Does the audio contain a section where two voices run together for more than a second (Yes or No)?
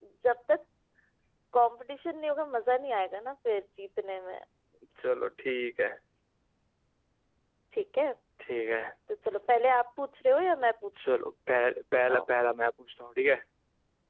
No